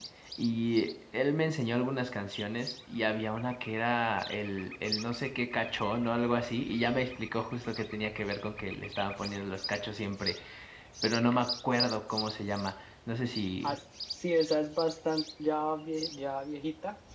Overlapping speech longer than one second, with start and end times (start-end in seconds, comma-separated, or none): none